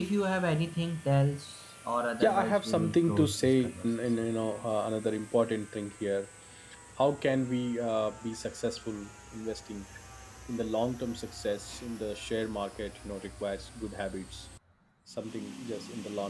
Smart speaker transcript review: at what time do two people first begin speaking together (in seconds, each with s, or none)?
2.2 s